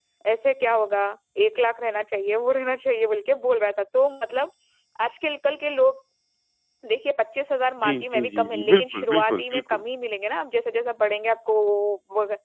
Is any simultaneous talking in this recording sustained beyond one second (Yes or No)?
Yes